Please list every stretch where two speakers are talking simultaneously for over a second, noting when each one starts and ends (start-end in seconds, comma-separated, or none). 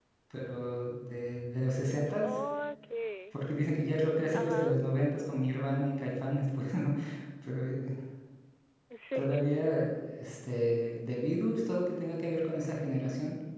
none